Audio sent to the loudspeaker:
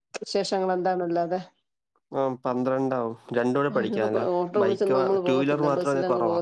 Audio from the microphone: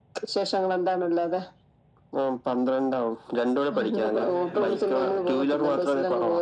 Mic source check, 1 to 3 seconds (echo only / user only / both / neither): echo only